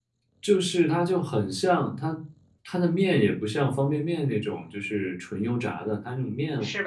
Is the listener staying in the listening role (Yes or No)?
Yes